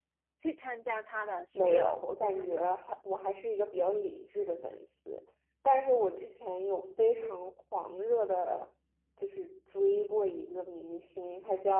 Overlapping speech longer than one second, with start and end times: 1.6-2.8

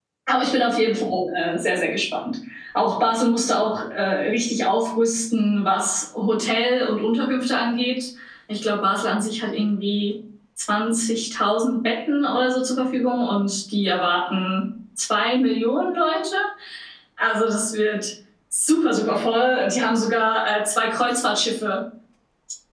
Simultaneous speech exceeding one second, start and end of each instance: none

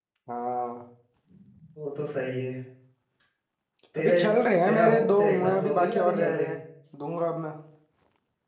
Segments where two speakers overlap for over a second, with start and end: 4.6-6.5

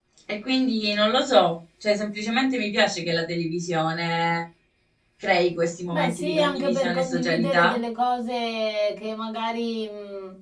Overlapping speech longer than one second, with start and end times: 5.9-7.8

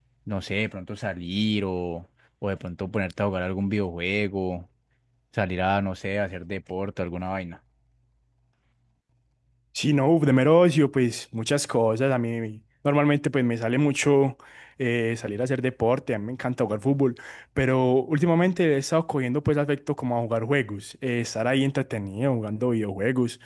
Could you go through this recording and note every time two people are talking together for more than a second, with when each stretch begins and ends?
none

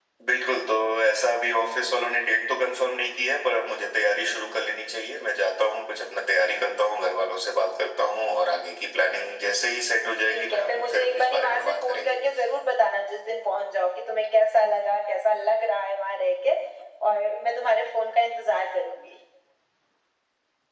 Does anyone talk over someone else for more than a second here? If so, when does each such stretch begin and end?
10.2-12.2

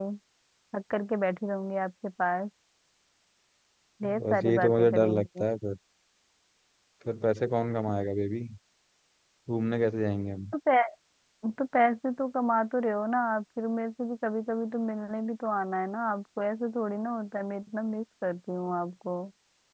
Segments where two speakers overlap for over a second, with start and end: 4.2-5.4

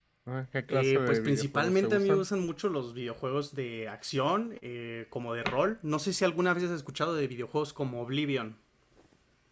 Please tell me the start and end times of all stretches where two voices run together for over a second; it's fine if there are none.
0.7-2.3

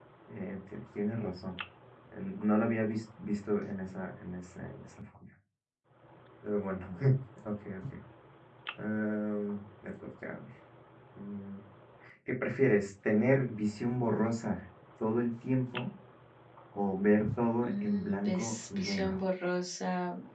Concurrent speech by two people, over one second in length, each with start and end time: 17.6-19.2

